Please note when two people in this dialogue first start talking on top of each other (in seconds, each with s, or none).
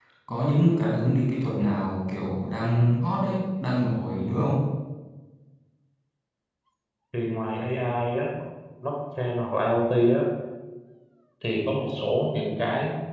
none